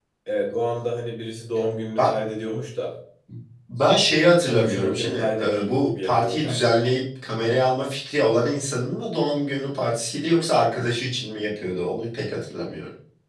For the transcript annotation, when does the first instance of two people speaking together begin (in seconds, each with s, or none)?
4.5 s